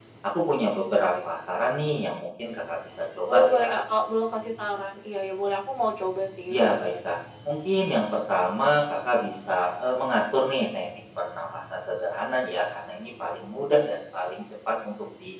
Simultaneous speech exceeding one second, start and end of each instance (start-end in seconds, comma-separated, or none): none